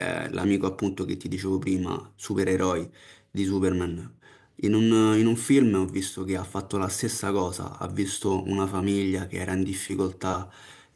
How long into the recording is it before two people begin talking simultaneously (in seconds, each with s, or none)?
none